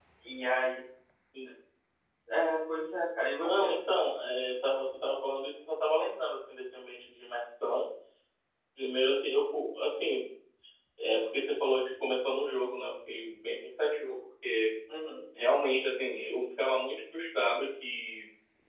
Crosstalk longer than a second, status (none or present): none